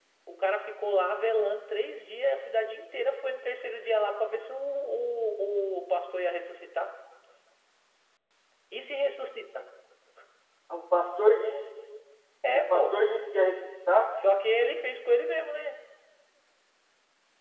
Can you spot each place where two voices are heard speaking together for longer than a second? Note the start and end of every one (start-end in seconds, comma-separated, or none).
none